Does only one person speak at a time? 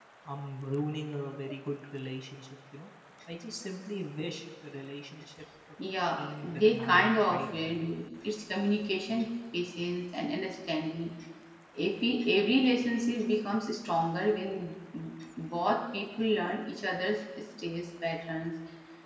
No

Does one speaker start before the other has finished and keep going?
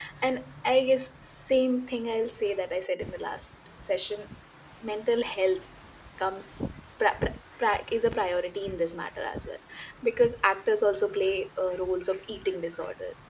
No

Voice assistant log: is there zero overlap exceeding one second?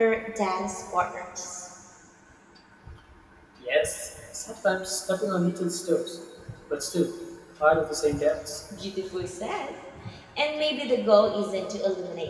Yes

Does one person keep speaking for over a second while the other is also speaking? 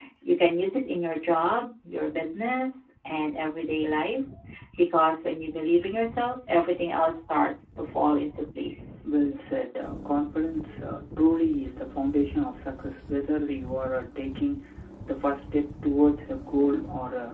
No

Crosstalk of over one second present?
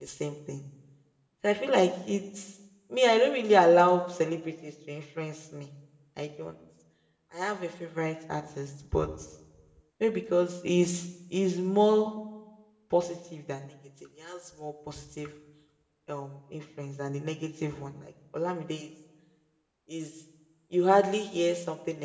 No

